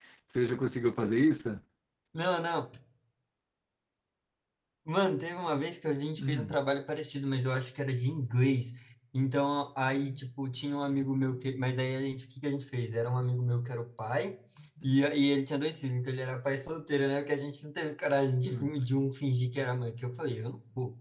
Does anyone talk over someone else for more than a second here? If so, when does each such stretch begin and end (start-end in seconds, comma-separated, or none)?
none